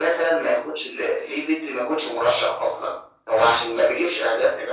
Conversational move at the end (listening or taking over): listening